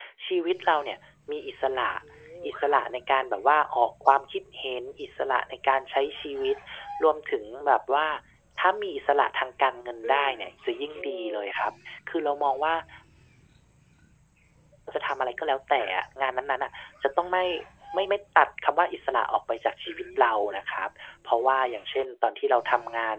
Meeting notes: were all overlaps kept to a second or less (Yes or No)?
Yes